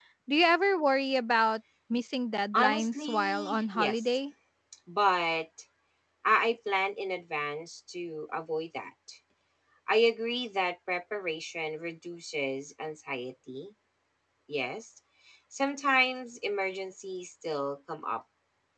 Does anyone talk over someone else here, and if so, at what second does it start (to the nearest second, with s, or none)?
3 s